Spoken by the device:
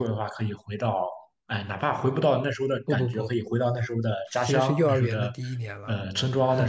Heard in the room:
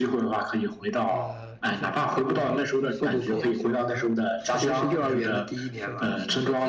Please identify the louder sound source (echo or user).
echo